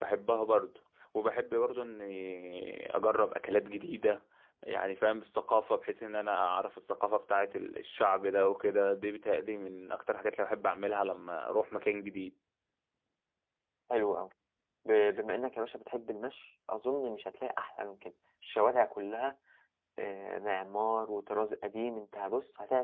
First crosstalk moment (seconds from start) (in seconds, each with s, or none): none